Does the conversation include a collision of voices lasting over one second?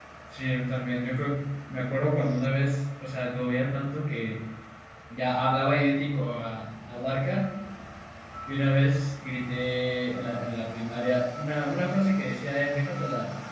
No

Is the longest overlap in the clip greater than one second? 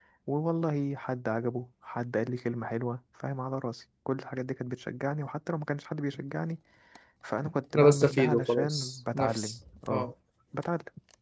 Yes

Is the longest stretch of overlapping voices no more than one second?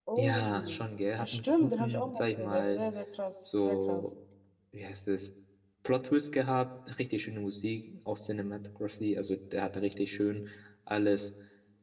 No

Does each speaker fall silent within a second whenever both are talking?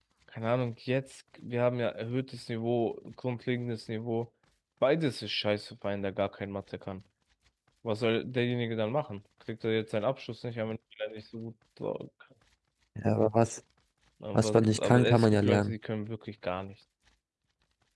No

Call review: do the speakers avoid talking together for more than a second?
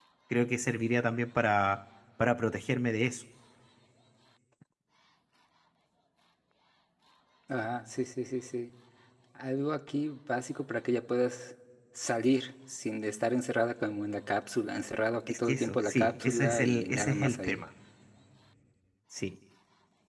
No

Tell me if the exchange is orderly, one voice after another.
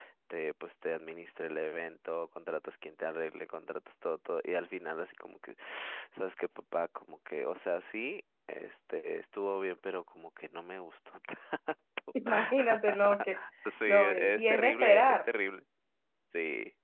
No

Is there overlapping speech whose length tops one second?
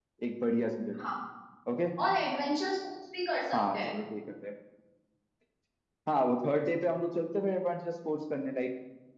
No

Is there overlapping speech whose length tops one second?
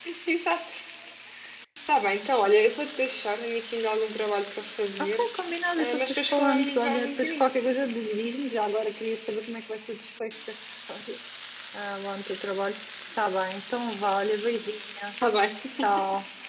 Yes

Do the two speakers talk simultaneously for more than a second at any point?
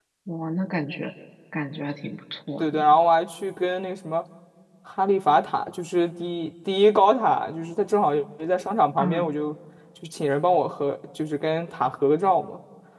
No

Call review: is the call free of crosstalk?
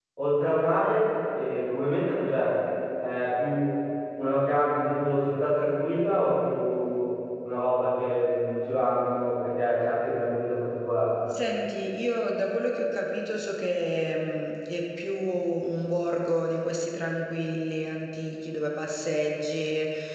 Yes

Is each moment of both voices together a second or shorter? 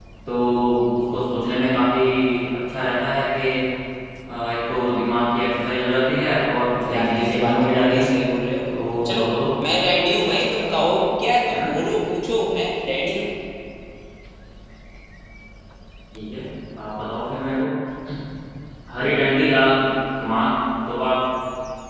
No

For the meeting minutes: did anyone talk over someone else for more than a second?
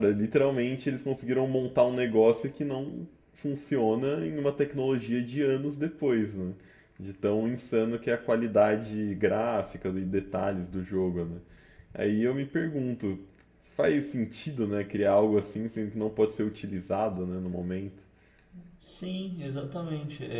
No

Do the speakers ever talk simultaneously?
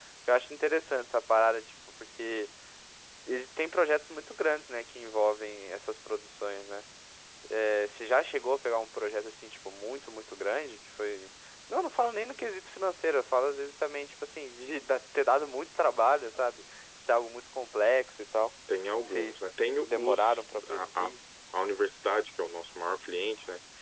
Yes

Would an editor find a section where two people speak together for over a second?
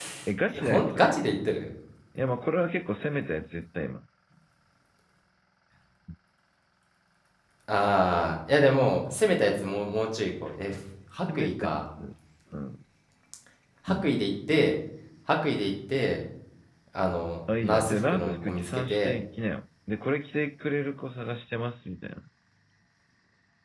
Yes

